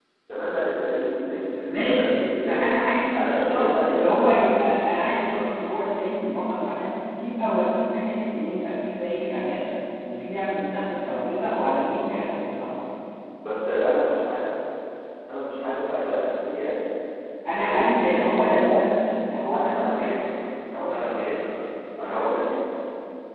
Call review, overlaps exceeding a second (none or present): present